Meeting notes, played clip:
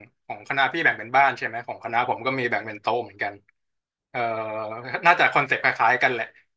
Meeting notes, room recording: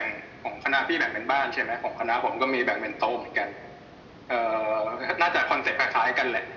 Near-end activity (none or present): none